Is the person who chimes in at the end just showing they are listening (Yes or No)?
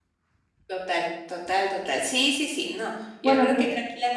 Yes